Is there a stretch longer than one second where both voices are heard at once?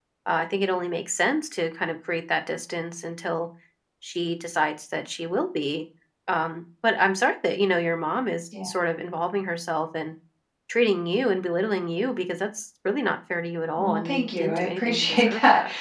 Yes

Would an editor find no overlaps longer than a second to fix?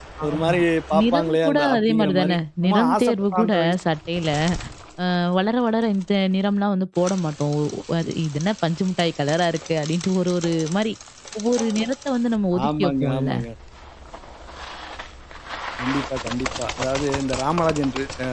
No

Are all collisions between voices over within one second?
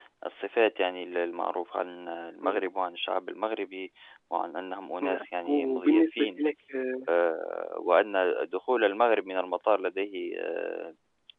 No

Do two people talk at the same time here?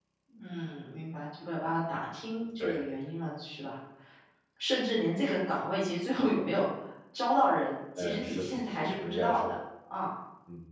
Yes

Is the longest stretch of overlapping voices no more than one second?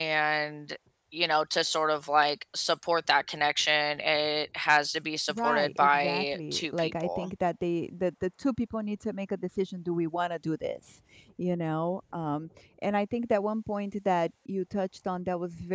No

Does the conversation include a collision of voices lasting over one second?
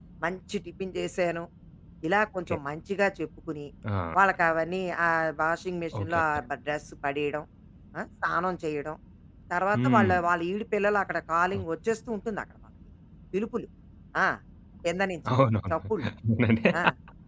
No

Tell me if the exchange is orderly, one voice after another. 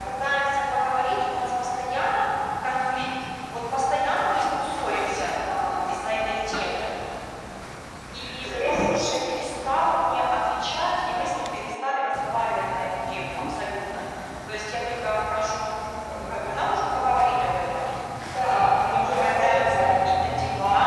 No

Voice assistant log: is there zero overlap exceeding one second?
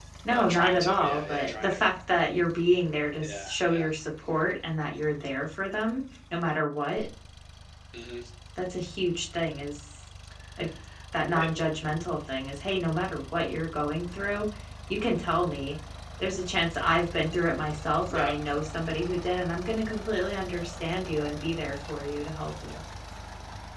No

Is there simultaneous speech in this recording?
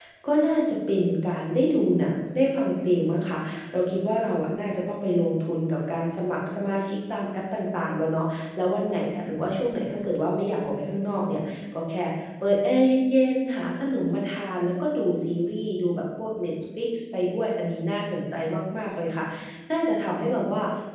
No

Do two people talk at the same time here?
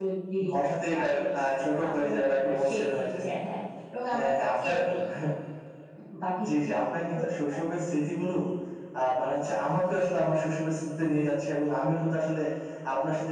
Yes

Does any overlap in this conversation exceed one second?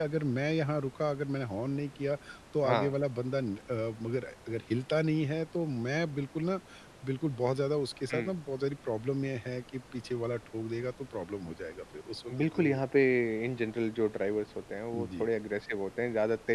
No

